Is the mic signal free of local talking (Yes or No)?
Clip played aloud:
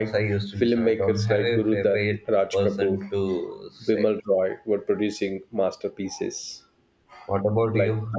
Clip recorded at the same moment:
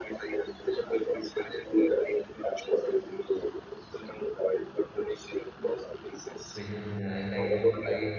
No